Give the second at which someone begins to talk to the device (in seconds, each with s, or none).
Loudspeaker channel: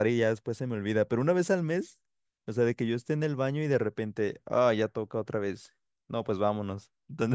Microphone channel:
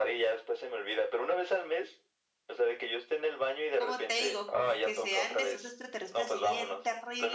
3.7 s